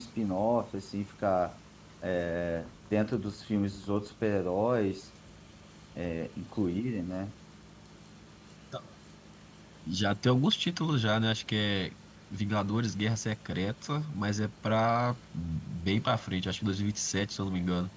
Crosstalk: none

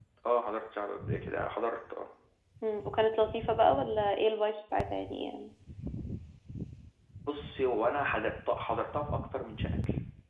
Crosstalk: none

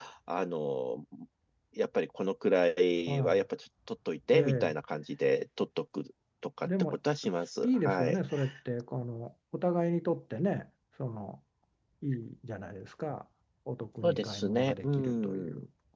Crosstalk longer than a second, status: present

